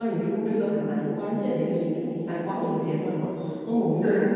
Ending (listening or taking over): listening